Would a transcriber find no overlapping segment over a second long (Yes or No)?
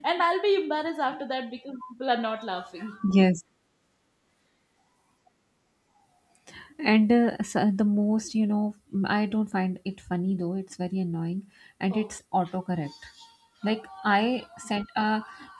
Yes